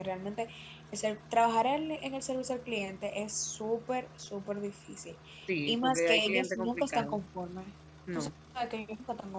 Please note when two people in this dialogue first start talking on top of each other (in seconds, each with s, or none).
5.7 s